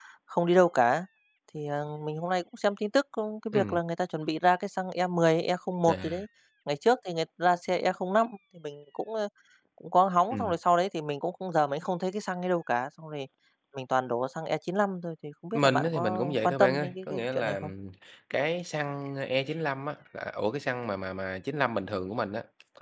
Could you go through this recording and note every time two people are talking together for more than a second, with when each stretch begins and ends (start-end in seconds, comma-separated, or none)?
15.5-17.7